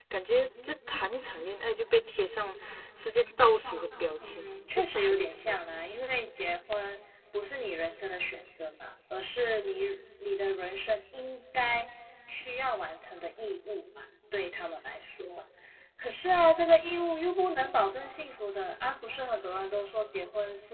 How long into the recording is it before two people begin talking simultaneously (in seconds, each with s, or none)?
4.2 s